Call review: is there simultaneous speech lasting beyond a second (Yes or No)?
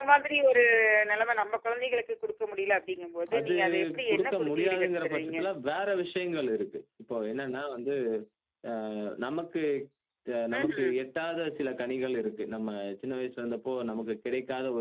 Yes